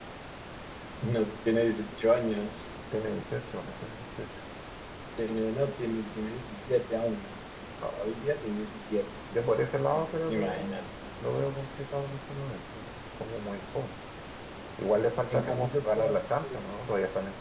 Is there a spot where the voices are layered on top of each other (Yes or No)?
Yes